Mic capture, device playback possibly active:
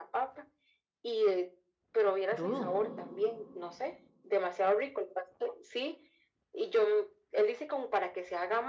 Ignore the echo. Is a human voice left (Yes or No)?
Yes